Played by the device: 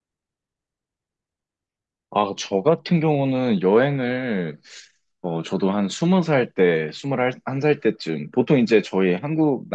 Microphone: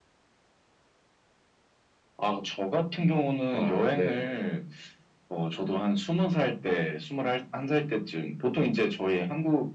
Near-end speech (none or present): present